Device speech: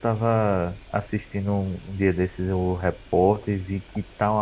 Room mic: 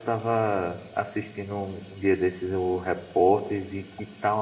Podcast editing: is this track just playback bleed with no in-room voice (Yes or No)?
Yes